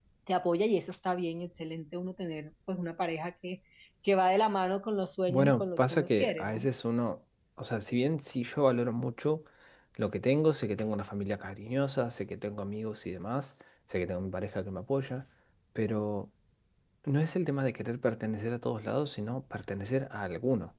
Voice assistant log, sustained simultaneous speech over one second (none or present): present